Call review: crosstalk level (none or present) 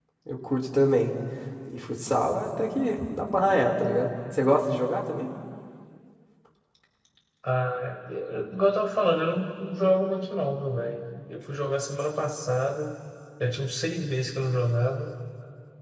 none